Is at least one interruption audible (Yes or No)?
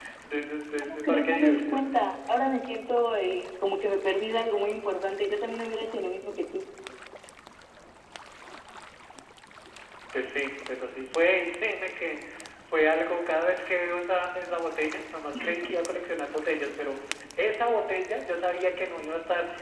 Yes